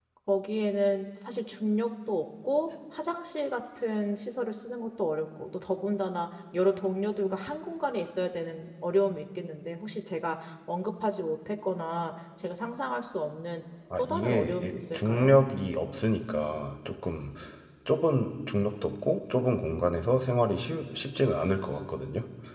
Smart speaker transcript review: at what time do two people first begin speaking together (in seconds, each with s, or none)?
13.9 s